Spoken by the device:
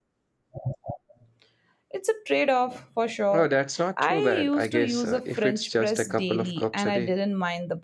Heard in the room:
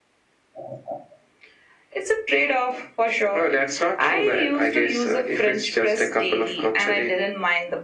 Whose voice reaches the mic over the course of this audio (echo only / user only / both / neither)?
echo only